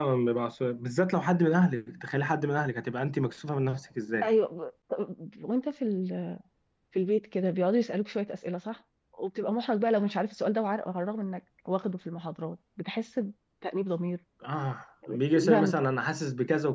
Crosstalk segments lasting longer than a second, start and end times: none

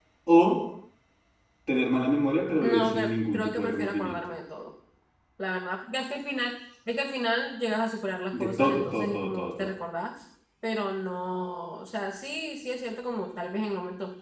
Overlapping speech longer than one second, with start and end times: 2.6-4.2, 8.3-9.7

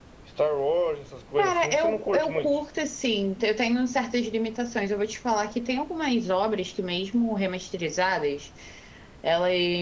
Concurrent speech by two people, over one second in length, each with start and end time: 1.4-2.6

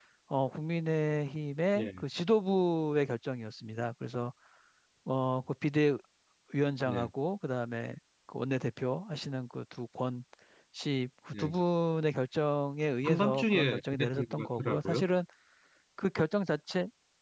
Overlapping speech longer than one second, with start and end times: 13.0-15.0

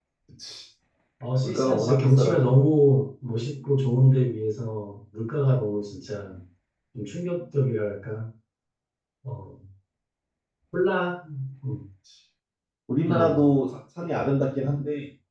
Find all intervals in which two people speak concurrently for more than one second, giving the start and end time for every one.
1.4-2.7

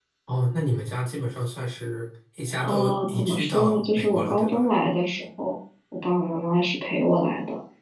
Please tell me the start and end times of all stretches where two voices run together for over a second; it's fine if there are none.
2.6-4.6

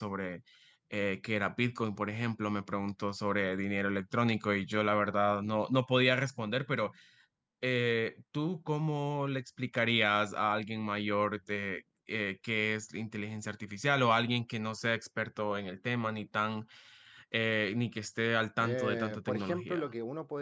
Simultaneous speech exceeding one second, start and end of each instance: 18.6-19.9

